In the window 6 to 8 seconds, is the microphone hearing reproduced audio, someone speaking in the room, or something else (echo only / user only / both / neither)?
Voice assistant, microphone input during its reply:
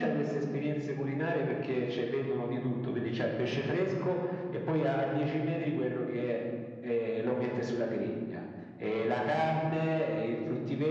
echo only